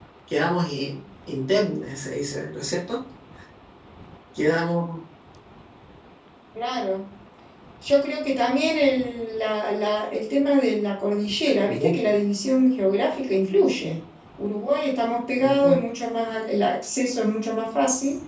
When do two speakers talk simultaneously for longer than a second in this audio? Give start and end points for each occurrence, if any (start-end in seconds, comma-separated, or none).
none